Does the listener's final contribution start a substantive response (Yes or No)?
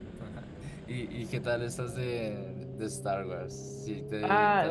Yes